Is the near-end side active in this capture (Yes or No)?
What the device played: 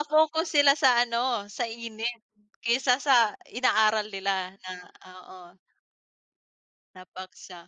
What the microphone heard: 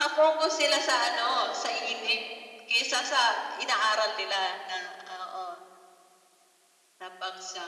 No